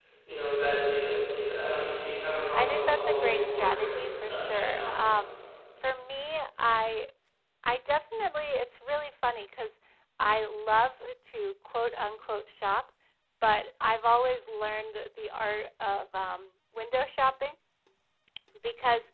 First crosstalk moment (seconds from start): 2.5 s

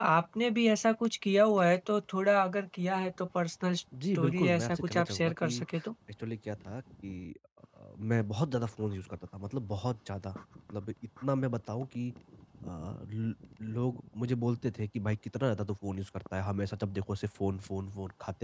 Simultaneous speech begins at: 3.9 s

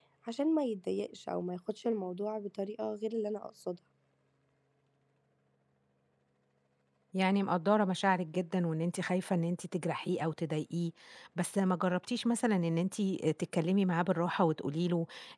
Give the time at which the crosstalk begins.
none

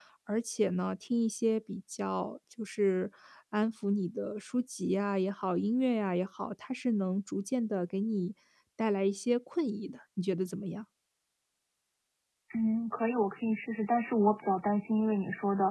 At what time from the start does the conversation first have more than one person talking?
none

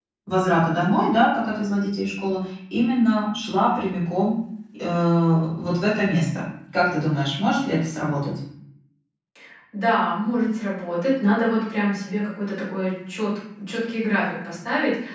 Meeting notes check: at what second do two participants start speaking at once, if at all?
none

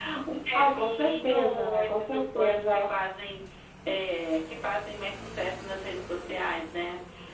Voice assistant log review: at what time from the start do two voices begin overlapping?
0.5 s

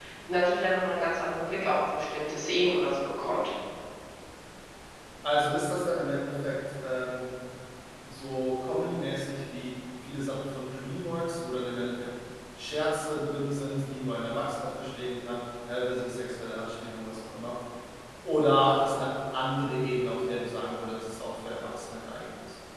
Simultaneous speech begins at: none

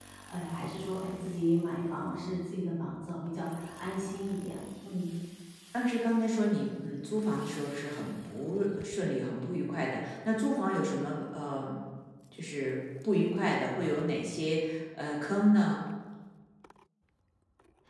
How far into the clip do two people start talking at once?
none

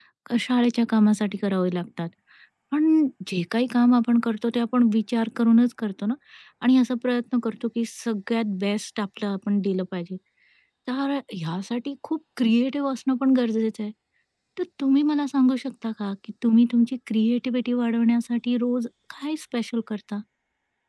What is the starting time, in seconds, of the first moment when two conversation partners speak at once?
none

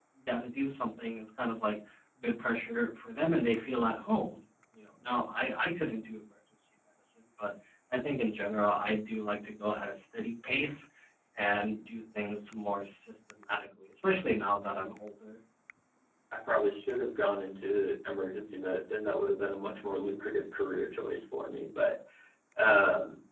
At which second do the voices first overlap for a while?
none

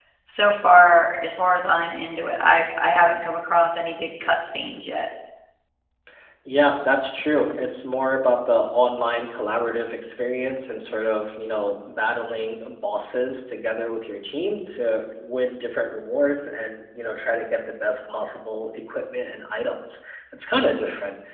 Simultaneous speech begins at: none

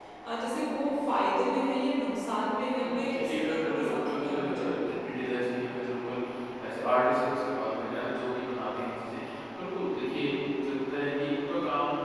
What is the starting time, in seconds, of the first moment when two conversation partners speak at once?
2.8 s

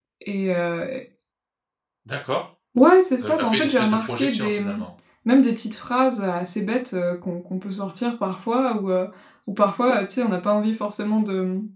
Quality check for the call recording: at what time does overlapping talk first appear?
3.2 s

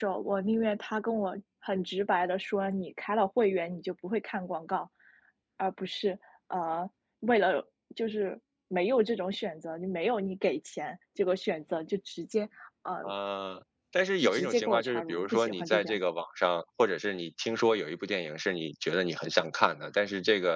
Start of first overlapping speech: 14.2 s

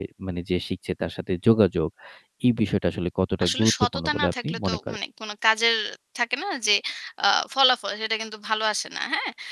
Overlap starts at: 3.4 s

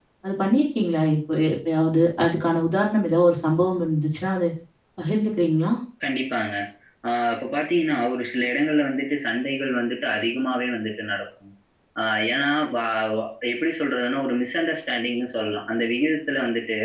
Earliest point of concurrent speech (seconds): none

